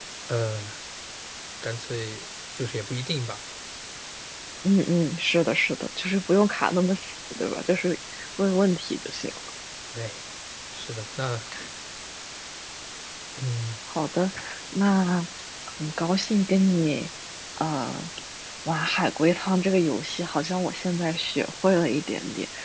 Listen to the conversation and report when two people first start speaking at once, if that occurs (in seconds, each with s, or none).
none